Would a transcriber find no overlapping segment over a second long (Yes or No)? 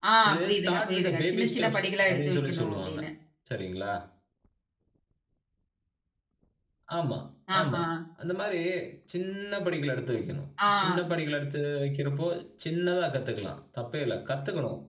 No